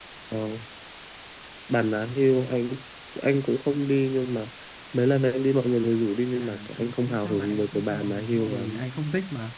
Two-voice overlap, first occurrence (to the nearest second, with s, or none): 6 s